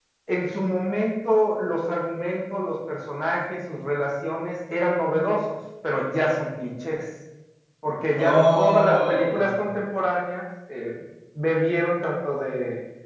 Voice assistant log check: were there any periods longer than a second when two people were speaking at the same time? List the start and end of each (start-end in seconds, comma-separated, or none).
8.2-9.6